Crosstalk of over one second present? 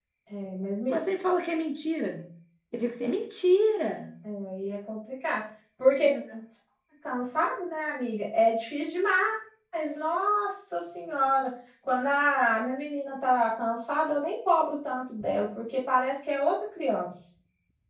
No

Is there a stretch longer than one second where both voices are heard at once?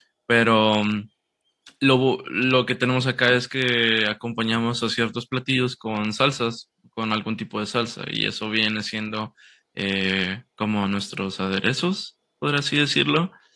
No

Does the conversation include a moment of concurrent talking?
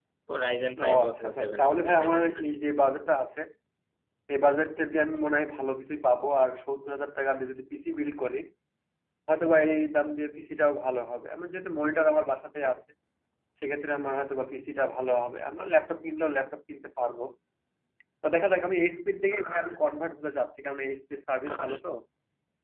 Yes, from 0.9 s

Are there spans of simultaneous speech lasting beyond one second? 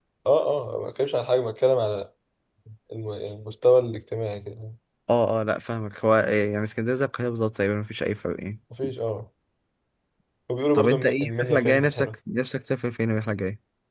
Yes, from 10.7 s

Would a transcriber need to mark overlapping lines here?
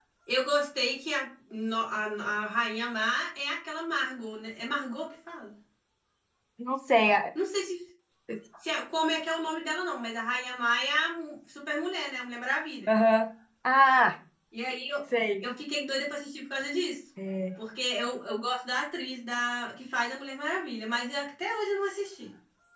No

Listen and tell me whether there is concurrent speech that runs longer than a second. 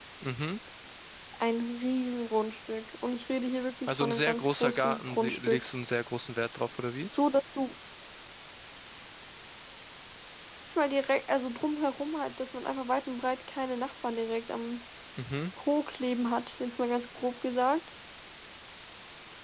Yes, from 3.9 s

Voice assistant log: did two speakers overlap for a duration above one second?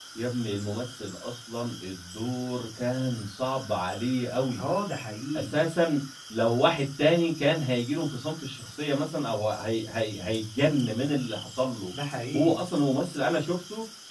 No

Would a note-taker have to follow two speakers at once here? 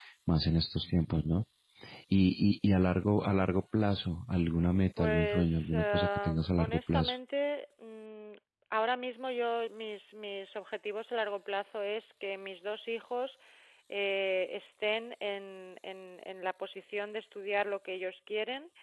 Yes, from 5.0 s

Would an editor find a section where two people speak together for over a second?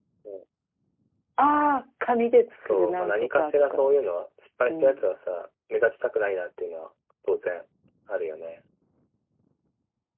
Yes, from 2.5 s

